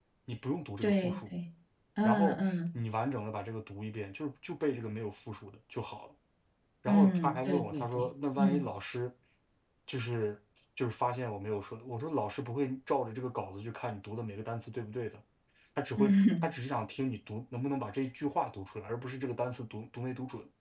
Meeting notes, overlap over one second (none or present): present